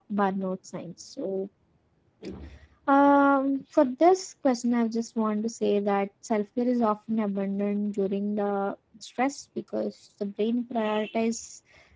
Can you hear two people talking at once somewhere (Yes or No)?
No